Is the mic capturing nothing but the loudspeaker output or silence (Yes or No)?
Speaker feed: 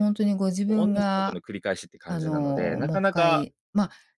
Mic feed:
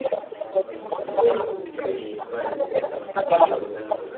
No